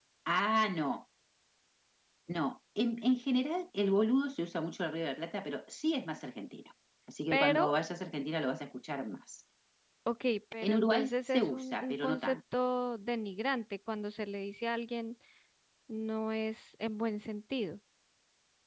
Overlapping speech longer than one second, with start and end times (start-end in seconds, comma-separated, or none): 10.6-12.4